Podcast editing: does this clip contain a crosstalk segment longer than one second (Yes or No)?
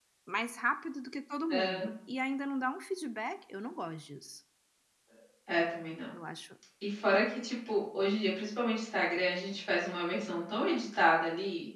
No